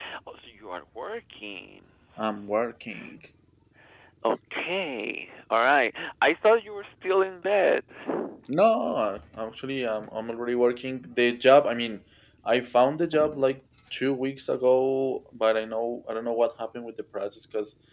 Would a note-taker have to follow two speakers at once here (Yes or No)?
No